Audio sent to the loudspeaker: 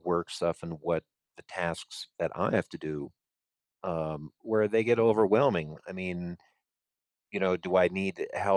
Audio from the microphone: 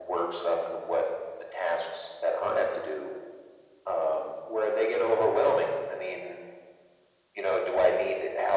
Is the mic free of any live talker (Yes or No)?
Yes